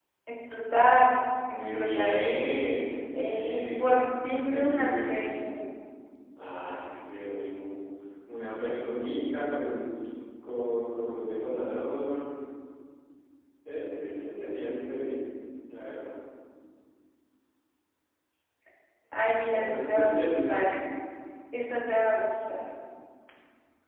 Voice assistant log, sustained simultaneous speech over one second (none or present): present